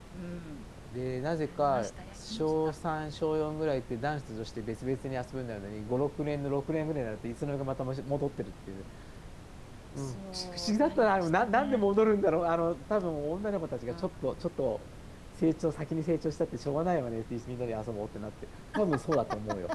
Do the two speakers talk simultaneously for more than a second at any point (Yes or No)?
Yes